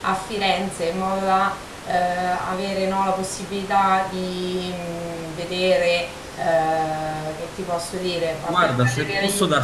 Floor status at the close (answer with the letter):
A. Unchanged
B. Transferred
B